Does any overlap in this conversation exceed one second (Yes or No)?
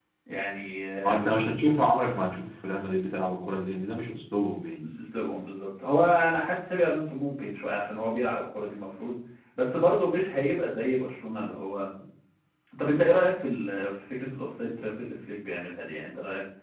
No